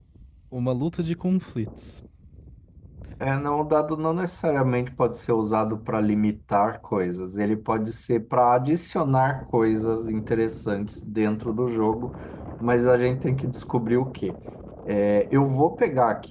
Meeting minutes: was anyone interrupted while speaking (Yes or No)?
No